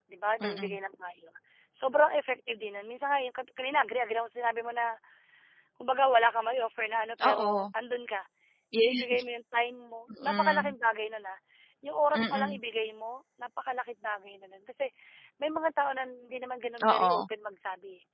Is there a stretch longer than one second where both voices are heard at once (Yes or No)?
No